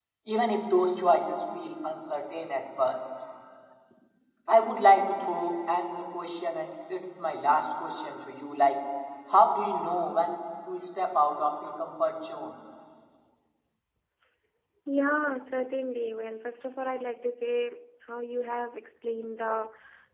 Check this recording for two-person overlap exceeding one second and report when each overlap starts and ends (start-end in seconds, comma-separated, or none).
none